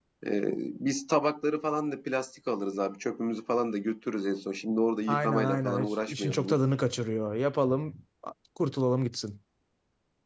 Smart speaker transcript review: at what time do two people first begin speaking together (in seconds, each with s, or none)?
5.1 s